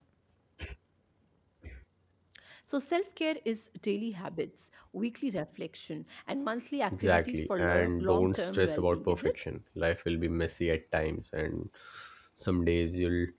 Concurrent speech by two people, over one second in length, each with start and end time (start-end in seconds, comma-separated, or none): 6.9-9.4